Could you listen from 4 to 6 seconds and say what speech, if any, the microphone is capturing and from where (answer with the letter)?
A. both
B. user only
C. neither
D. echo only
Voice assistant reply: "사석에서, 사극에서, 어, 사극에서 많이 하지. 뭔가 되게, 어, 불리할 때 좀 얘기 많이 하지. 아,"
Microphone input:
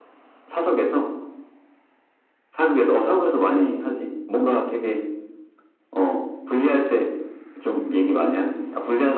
D